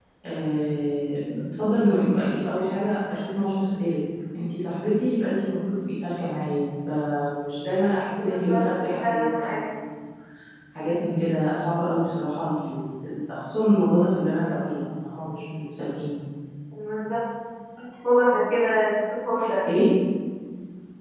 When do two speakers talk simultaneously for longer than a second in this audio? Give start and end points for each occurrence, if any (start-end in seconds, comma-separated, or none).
8.2-9.6